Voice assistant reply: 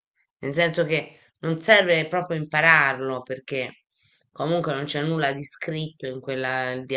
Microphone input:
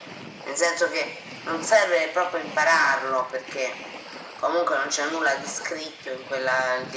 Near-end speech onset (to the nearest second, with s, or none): none